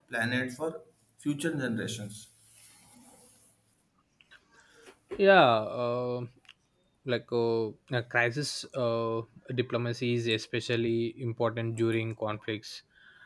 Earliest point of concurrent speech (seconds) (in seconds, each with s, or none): none